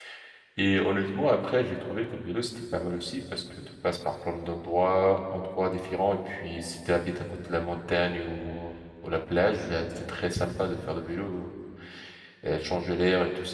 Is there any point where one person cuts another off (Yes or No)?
No